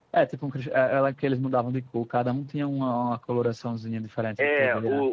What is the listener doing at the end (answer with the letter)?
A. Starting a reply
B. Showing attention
A